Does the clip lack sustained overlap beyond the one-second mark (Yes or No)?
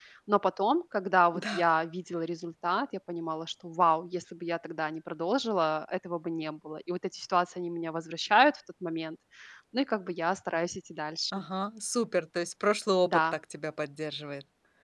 Yes